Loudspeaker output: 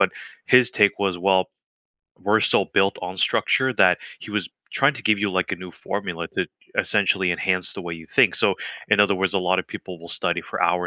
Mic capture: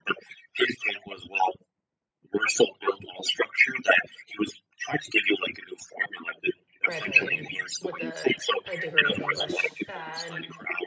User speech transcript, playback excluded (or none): graduated with a a degree in English, uh, and